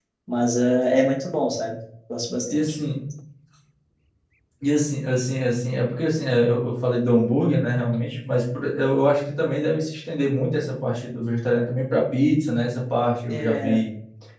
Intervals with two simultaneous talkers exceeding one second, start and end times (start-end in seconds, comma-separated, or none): none